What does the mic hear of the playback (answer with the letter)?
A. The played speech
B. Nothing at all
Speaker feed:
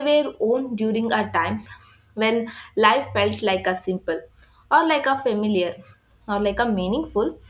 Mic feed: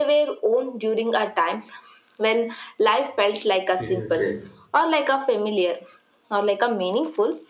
A